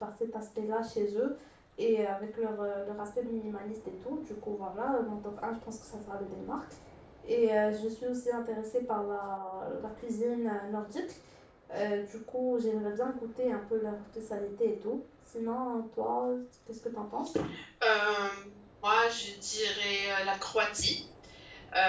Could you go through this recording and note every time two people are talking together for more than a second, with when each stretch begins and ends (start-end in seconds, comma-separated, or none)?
none